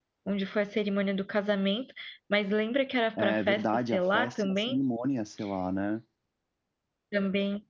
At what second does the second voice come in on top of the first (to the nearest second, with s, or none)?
3 s